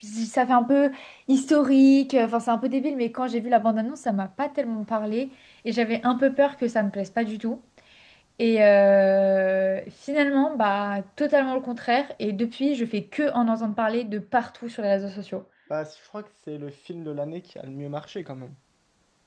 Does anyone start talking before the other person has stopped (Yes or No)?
No